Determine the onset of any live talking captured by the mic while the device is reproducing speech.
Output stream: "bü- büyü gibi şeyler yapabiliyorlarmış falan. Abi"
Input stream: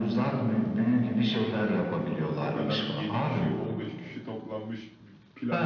2.4 s

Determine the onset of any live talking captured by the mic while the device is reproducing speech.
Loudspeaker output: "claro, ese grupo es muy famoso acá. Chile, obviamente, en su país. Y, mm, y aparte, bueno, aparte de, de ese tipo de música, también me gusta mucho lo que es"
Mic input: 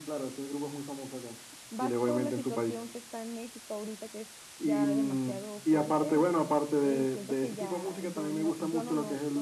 1.7 s

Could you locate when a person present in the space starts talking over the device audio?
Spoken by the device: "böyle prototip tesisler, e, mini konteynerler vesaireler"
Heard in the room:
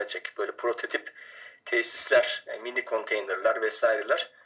none

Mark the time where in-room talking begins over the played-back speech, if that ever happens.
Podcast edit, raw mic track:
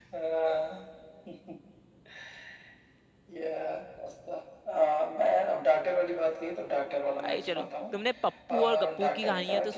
7.2 s

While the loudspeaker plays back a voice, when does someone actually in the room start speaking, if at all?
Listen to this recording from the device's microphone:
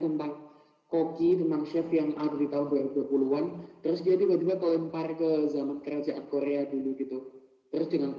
none

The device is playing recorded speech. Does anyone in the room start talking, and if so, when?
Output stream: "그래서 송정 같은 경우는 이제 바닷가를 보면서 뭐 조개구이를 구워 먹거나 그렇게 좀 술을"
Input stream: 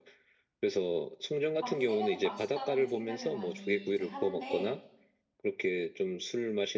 1.6 s

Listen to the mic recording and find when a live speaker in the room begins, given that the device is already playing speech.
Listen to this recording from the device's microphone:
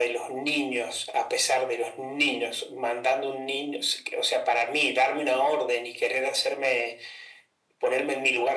none

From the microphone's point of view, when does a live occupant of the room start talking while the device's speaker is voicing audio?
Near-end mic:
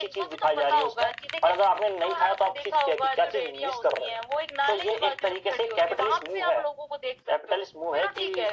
none

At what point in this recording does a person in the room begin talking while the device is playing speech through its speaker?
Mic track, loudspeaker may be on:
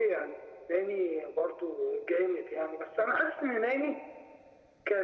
none

